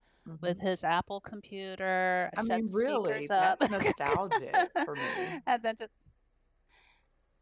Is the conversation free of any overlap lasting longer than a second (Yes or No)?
No